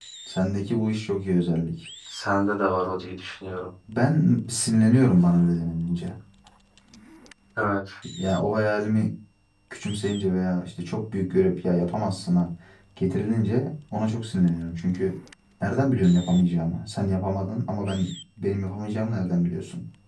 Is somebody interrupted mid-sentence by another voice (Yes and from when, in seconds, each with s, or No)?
No